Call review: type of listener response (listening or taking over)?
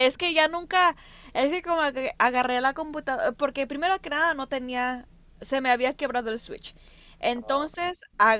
listening